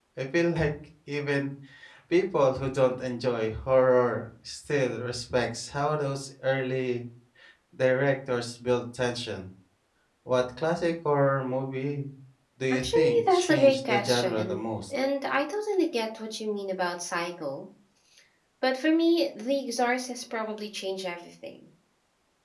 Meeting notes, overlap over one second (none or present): present